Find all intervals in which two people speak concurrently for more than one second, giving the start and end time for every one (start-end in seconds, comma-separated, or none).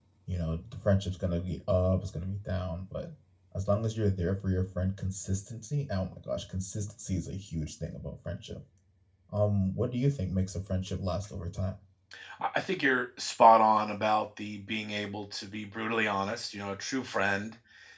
none